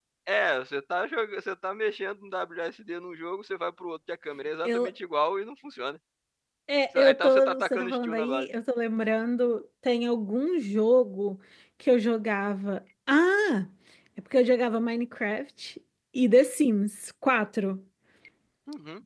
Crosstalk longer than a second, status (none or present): present